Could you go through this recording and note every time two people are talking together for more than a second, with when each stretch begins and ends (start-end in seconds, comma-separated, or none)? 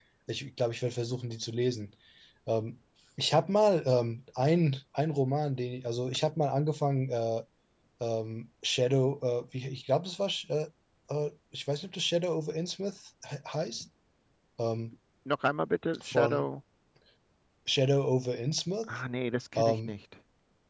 none